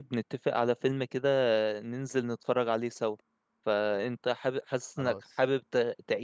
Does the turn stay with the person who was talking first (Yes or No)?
Yes